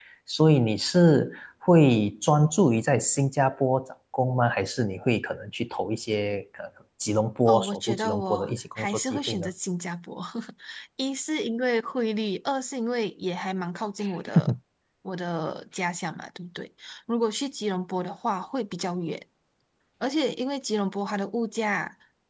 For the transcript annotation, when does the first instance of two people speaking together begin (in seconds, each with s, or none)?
7.5 s